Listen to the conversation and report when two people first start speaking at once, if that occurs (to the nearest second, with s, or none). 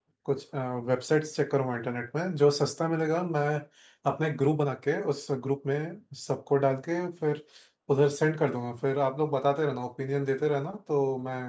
none